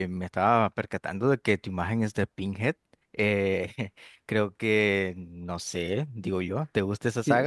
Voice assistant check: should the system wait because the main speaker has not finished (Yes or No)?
No